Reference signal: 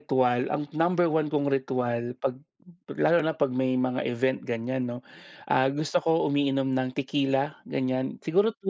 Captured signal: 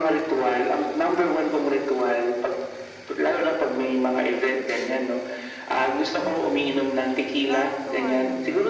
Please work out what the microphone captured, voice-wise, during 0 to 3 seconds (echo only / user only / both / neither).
echo only